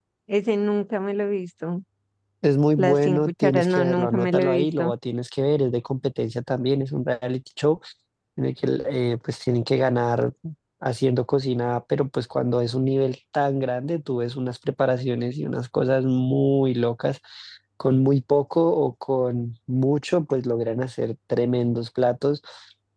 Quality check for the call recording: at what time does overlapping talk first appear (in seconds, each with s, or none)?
2.8 s